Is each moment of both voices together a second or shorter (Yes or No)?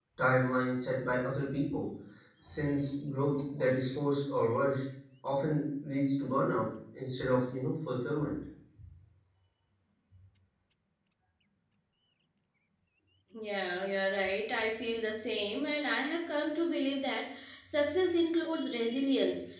Yes